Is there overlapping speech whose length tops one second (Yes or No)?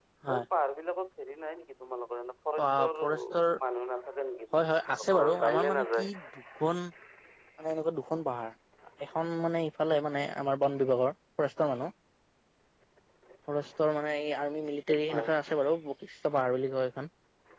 Yes